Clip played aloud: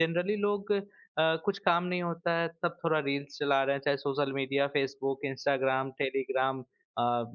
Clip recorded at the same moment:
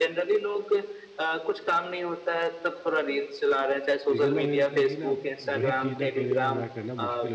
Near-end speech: present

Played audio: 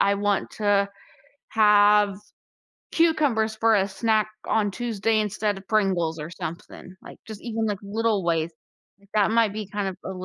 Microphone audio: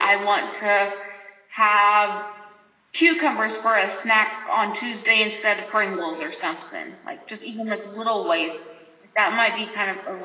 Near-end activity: none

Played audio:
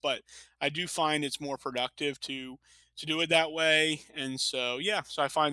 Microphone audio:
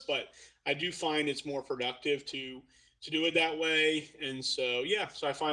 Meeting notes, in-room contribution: none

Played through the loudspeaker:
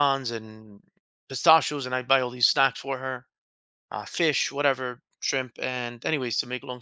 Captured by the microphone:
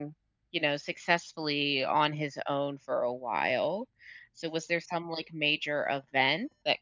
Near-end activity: present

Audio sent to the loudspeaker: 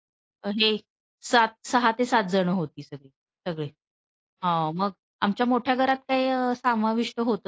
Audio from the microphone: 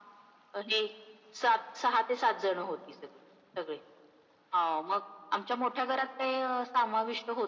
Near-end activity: none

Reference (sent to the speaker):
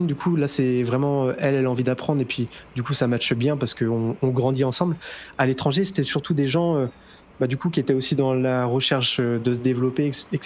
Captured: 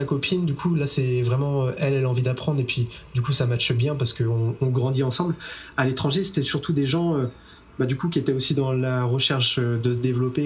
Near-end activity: none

